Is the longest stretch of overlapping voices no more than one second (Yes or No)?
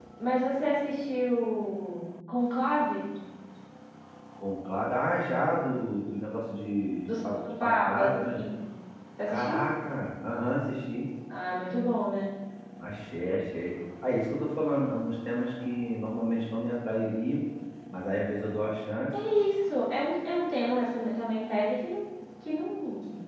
No